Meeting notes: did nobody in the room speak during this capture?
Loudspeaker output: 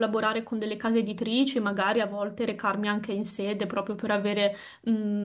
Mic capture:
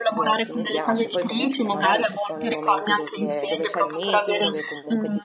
No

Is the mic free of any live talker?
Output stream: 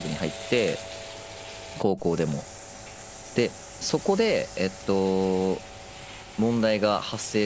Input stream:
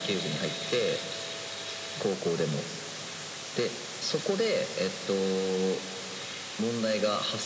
Yes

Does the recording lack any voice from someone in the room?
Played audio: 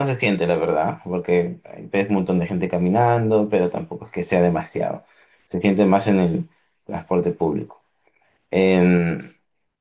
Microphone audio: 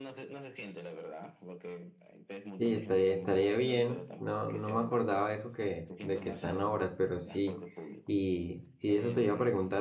No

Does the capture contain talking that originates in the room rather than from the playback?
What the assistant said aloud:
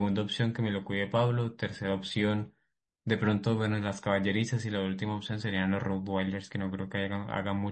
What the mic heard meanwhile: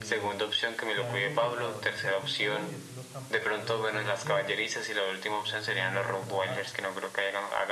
Yes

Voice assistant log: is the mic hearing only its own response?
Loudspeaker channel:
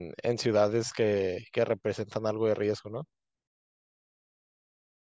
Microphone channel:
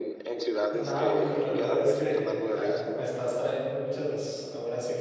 No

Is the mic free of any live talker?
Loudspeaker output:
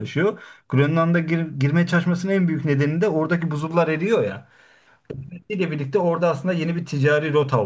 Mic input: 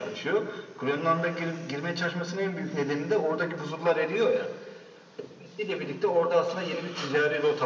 Yes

